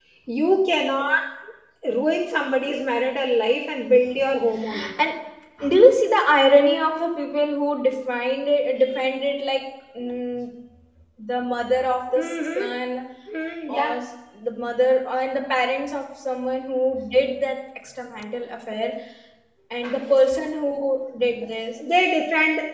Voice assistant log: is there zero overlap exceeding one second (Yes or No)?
Yes